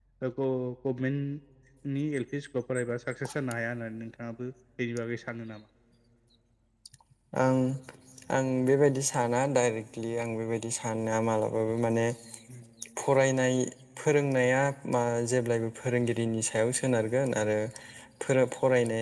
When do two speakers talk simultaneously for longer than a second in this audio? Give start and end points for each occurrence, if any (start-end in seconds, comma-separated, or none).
none